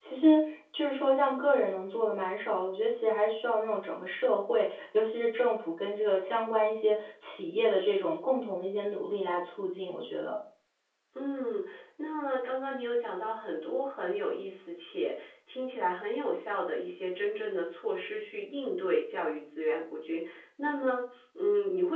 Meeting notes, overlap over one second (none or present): none